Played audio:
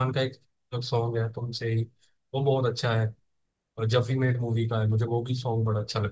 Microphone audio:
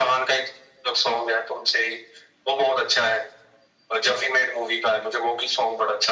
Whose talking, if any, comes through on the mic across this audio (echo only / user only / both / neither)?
echo only